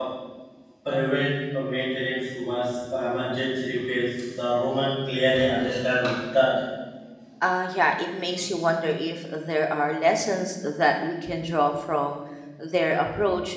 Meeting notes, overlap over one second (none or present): none